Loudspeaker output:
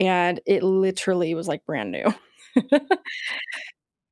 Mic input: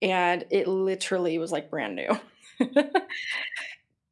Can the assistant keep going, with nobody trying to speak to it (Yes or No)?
Yes